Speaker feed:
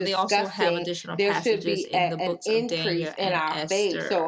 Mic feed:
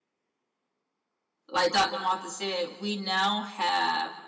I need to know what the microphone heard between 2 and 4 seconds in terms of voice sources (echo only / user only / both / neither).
user only